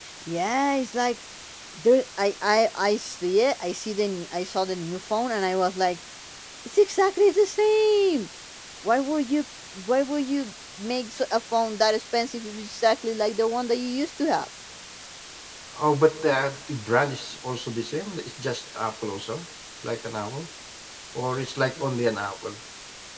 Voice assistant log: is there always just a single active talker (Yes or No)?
Yes